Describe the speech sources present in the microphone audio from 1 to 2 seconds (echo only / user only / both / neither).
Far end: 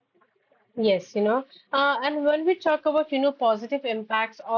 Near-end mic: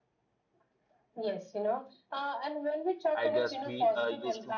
echo only